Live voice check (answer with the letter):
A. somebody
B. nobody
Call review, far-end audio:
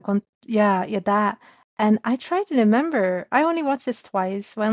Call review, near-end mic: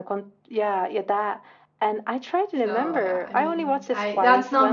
A